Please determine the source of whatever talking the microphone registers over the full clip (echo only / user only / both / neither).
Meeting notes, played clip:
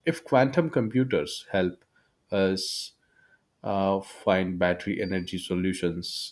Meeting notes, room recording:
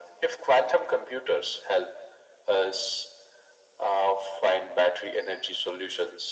echo only